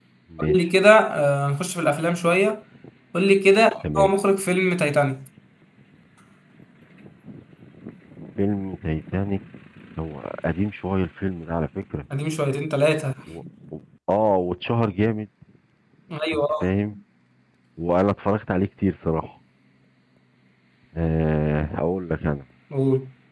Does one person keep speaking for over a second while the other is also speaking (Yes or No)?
No